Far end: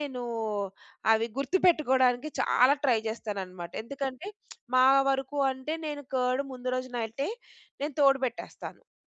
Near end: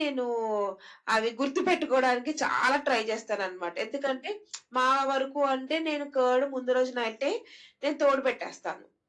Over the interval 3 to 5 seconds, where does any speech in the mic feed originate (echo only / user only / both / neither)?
echo only